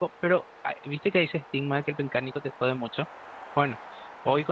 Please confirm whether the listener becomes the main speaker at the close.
No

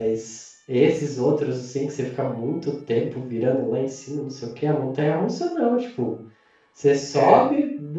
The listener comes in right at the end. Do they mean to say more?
No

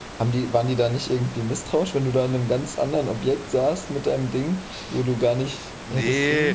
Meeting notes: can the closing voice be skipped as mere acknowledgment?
No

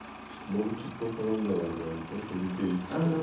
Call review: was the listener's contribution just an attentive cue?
No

